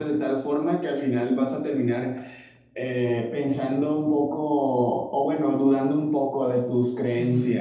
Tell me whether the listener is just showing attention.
No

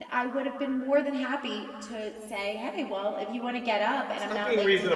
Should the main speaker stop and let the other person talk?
Yes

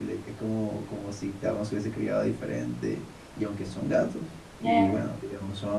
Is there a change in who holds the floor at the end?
No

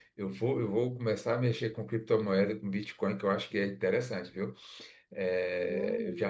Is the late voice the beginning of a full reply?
Yes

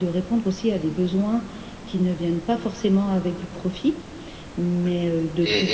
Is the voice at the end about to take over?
Yes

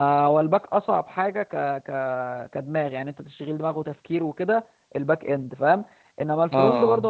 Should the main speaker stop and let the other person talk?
No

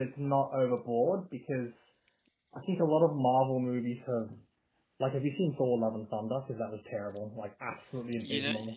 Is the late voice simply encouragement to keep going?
No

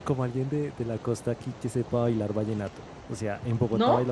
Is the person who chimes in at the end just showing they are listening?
Yes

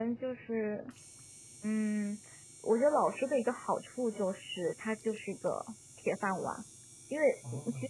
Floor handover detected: No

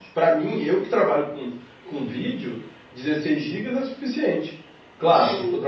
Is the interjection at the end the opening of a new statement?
No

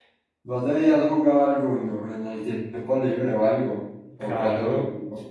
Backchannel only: No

